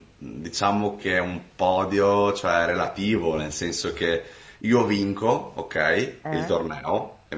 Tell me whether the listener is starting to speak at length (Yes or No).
No